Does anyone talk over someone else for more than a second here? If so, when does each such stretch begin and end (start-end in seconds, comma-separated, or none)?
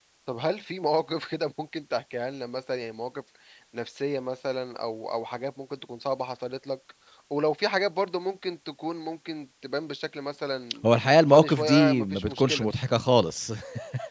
11.3-12.7